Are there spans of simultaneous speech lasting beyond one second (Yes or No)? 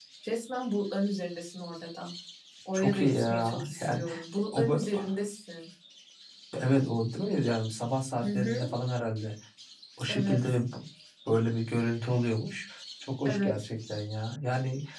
Yes